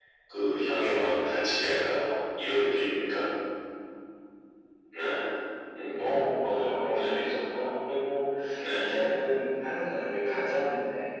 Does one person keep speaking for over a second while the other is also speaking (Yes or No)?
No